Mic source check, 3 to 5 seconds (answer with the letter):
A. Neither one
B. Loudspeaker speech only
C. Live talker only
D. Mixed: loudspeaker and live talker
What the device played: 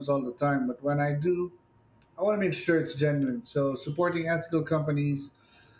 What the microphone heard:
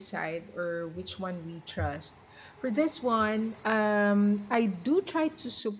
C